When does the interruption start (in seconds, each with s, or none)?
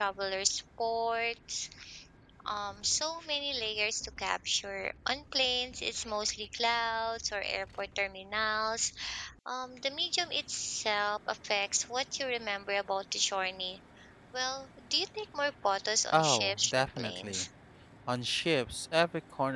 16.1 s